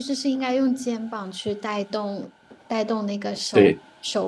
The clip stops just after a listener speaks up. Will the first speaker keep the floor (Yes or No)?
Yes